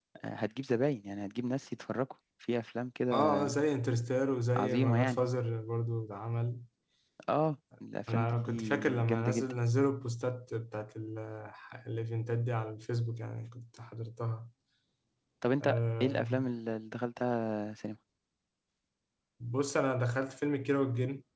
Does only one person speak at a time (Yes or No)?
No